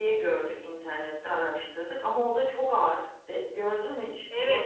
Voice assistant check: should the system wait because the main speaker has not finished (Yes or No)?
No